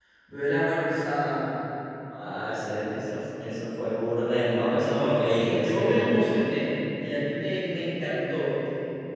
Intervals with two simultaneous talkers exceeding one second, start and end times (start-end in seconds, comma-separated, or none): 4.6-6.1